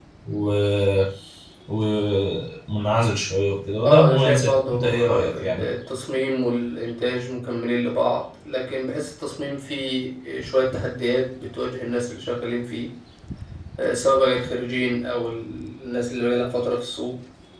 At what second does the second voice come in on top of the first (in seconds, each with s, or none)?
3.8 s